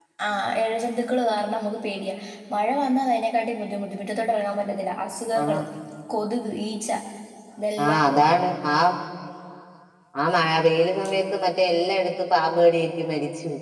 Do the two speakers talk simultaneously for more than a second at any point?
No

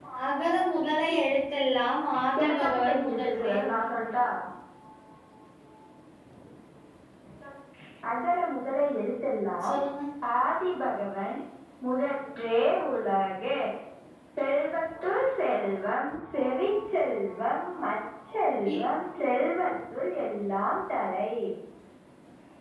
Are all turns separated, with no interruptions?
No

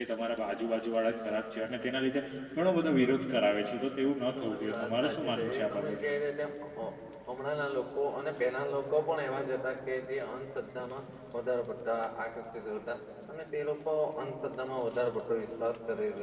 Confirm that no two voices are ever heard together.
No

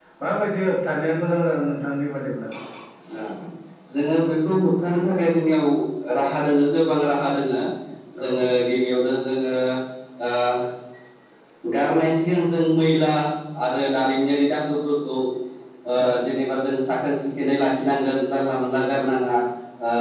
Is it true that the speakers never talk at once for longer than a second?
Yes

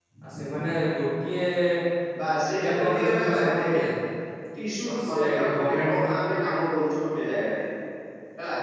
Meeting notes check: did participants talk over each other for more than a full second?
Yes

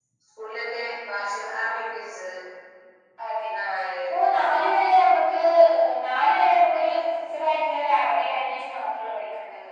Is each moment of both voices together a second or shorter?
Yes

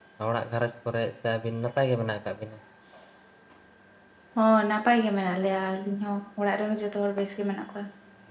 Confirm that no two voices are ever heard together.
Yes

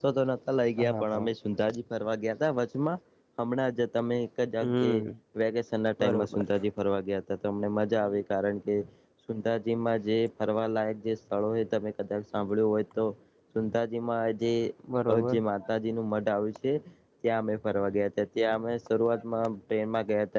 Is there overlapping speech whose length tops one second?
No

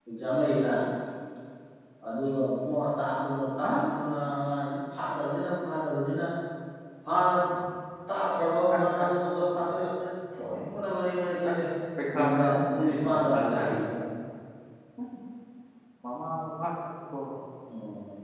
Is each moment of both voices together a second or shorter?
No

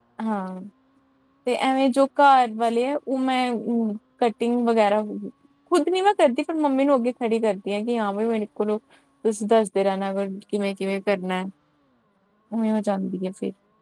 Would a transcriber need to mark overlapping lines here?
No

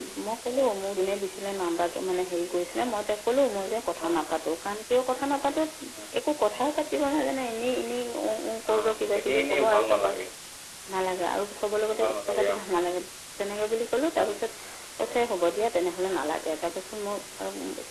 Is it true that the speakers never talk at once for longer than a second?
No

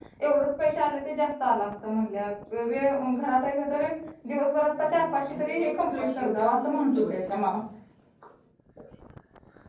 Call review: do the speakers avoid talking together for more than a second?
No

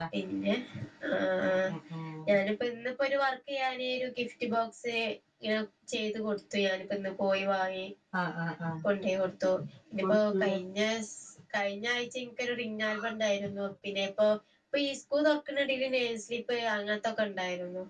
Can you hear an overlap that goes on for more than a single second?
No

